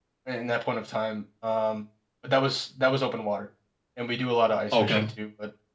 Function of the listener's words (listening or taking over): listening